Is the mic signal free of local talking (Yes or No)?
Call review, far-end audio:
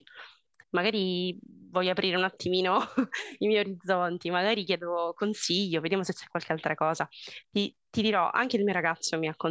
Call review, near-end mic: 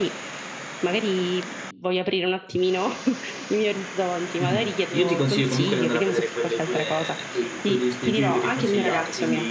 No